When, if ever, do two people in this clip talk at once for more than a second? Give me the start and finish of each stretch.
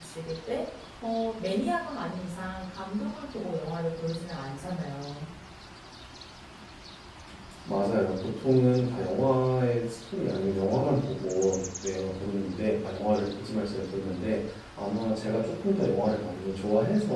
none

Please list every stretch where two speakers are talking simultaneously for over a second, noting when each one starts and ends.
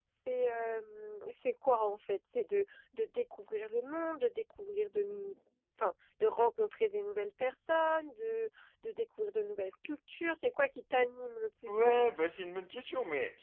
none

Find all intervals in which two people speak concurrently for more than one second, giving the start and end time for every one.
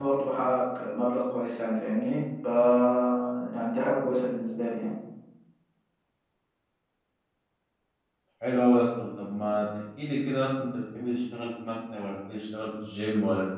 none

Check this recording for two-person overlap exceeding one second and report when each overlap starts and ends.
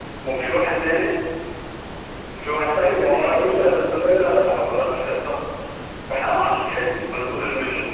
2.8-4.5

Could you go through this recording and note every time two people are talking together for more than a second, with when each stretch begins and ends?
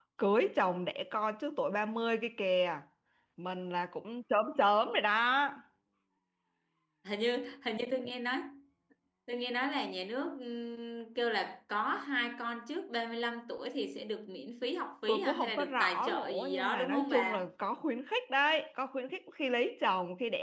15.1-17.4

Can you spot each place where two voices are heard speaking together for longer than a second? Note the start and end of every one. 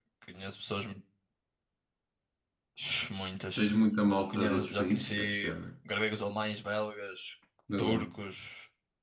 4.3-5.5

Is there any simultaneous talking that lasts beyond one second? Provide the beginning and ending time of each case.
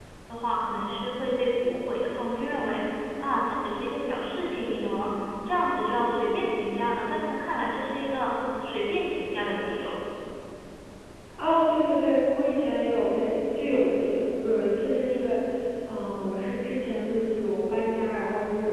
none

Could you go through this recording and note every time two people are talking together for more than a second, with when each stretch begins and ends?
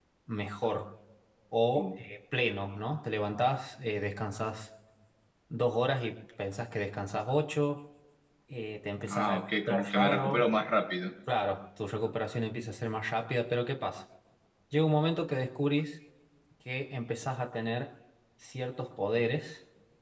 9.1-10.4

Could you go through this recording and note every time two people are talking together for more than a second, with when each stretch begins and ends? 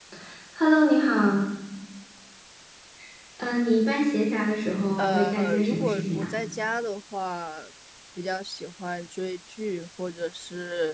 5.0-6.3

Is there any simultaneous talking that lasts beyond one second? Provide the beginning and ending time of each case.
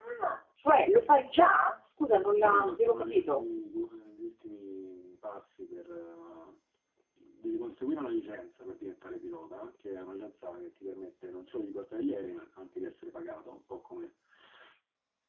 2.1-3.4

